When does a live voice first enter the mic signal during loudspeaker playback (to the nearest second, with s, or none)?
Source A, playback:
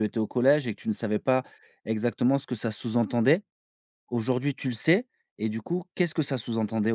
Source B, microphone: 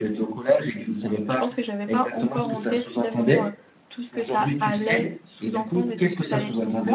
1 s